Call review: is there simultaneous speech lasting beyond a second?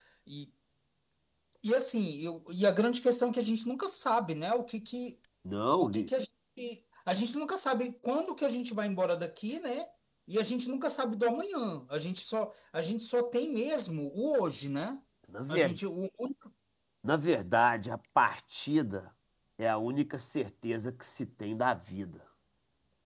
No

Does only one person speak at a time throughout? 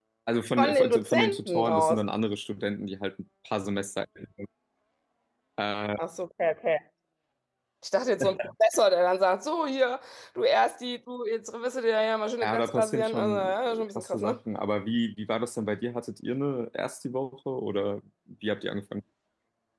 No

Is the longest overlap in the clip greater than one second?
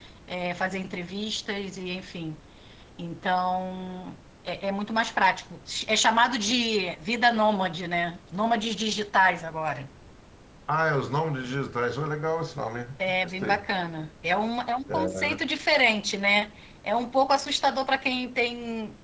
No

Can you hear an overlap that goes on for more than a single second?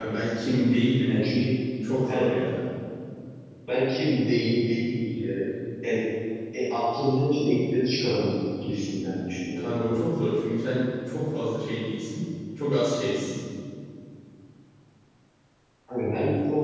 No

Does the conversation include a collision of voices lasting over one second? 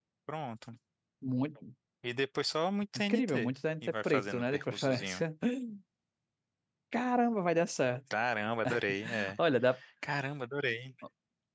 Yes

